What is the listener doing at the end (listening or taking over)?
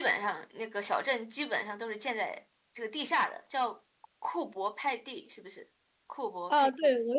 taking over